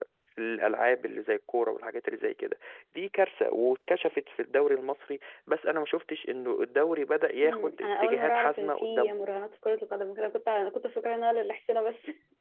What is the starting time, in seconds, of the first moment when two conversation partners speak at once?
7.4 s

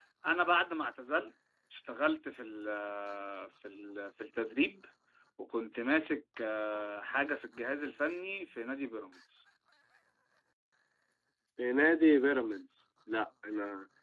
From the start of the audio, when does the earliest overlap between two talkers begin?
none

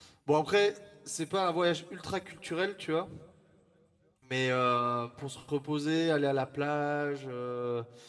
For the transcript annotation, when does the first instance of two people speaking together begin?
none

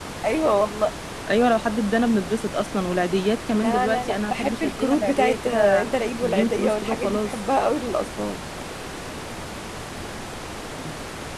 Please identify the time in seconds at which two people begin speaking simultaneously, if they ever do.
3.5 s

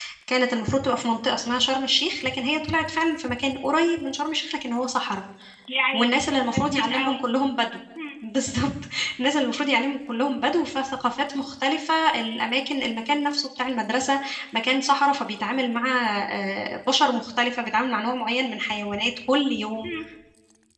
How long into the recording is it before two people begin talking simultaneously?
5.9 s

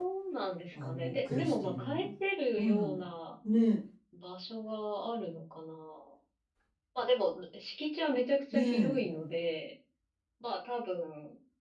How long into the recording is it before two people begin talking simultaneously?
0.7 s

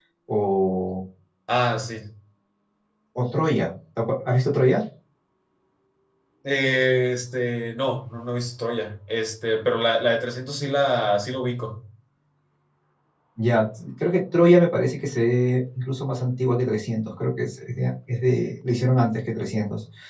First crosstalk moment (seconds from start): none

